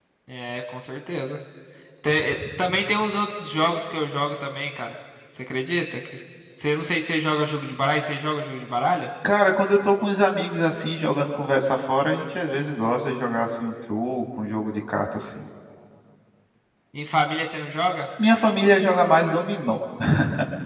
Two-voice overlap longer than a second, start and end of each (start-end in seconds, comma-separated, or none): none